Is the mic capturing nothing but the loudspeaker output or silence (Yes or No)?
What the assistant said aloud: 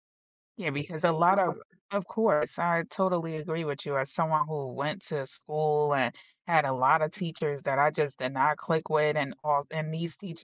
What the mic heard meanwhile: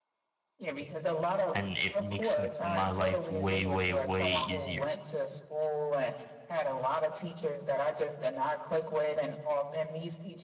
No